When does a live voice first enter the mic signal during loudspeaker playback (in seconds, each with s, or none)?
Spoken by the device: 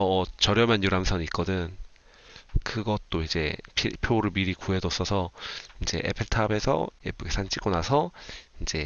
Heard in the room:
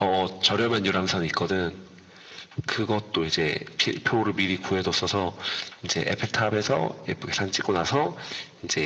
none